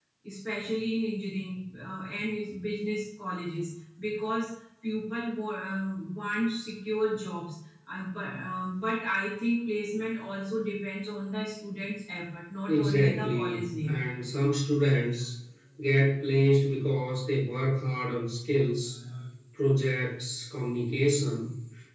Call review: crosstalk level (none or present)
present